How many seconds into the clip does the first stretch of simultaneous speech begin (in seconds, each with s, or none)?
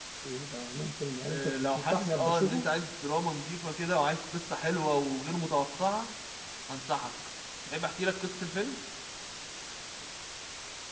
1.3 s